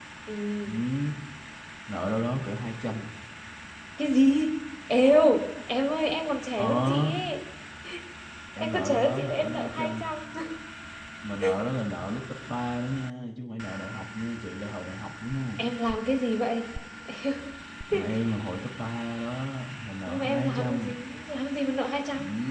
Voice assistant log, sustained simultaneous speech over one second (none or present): present